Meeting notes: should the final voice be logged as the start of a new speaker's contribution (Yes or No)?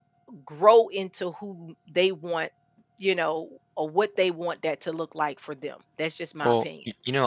Yes